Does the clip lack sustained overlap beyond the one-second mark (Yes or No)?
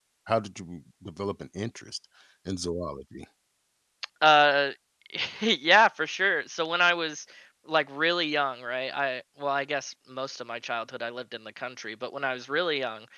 Yes